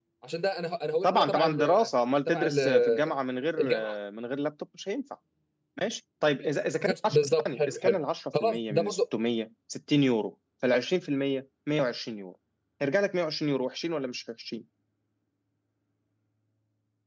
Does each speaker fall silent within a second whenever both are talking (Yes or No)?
No